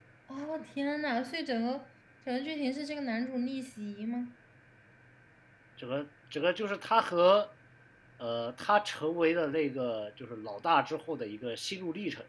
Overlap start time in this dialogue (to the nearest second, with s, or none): none